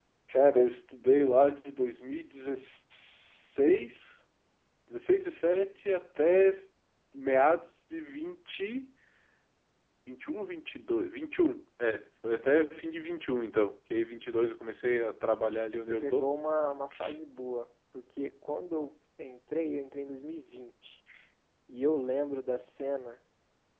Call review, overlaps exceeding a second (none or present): none